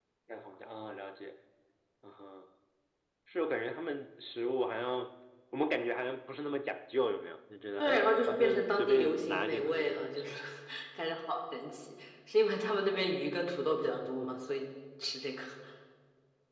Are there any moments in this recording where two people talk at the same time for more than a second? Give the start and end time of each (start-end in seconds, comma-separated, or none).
7.8-10.3